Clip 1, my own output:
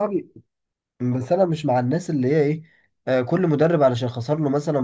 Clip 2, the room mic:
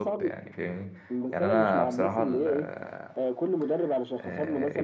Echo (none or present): present